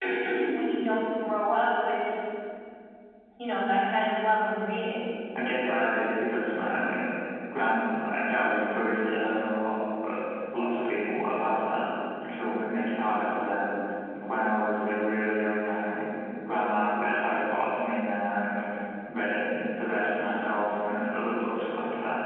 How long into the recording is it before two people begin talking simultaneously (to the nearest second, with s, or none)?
none